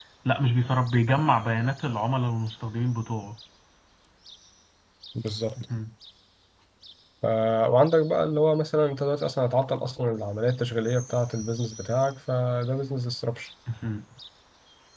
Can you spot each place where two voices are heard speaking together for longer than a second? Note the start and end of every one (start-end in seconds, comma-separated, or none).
none